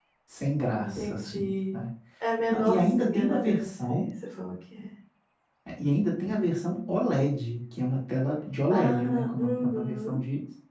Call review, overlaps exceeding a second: present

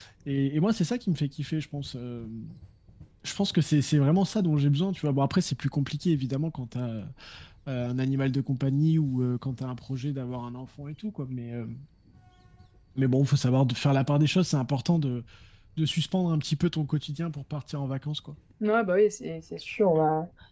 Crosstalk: none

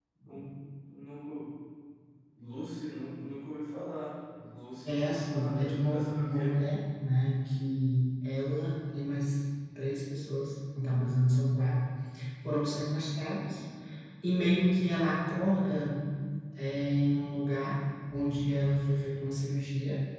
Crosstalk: present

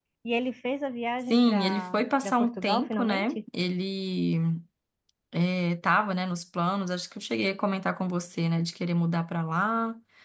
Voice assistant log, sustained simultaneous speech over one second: present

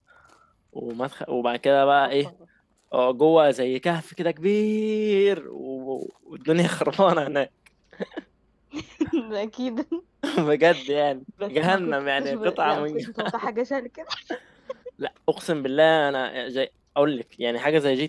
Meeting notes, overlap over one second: present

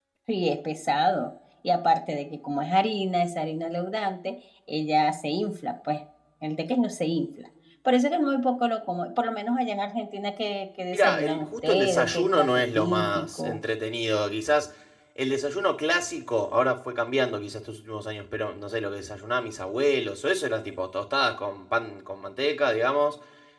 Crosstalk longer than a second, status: present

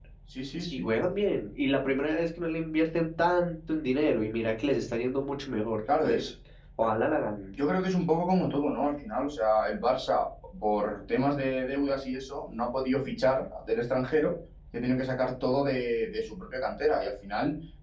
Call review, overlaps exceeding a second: none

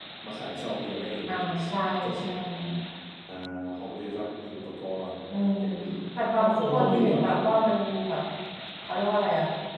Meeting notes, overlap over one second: present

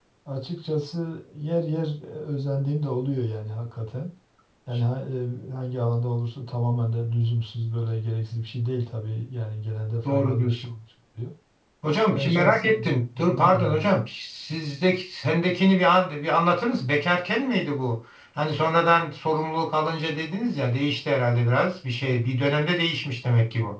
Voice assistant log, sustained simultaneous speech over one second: present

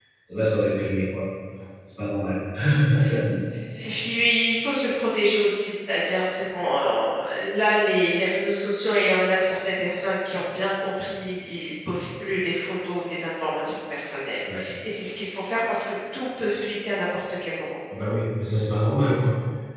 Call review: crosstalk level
none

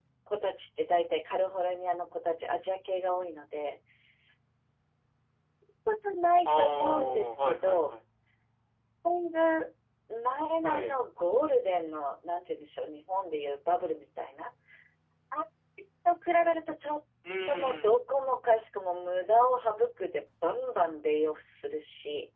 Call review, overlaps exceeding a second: present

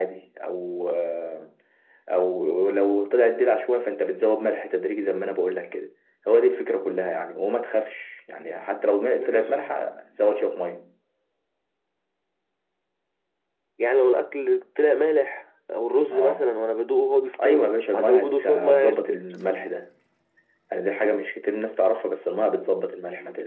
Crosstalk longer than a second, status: present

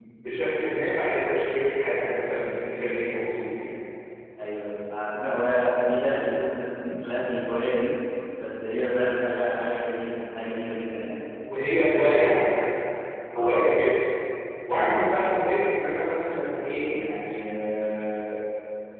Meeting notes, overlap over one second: none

